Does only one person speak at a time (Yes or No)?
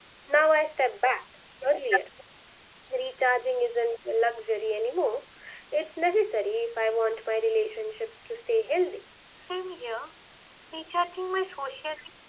Yes